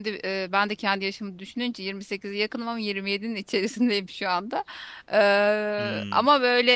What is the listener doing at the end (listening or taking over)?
listening